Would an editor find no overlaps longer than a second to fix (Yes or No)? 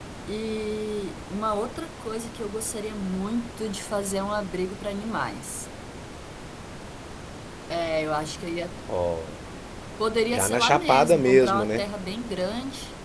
No